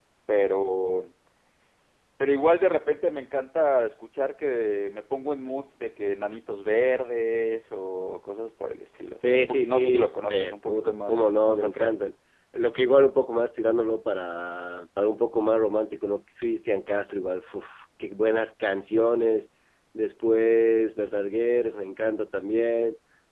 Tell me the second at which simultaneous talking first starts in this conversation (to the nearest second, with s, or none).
9 s